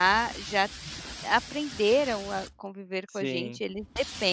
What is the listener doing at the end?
listening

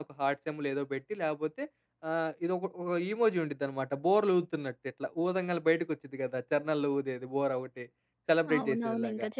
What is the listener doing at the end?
taking over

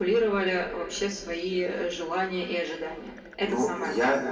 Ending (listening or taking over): taking over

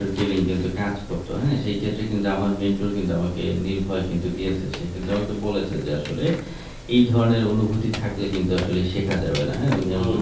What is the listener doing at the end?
taking over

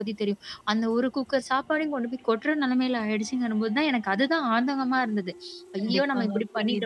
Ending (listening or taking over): taking over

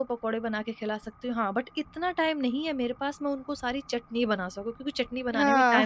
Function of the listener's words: listening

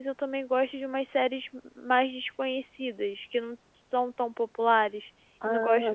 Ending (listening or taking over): listening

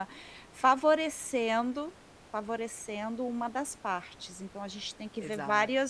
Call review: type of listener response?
listening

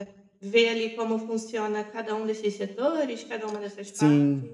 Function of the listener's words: taking over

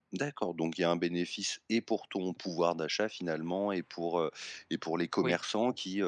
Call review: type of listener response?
listening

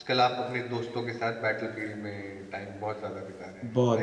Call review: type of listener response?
taking over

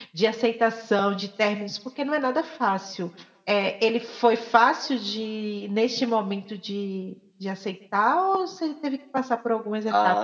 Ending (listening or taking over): taking over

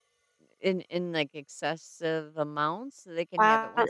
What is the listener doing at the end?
taking over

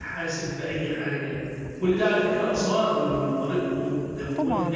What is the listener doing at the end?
taking over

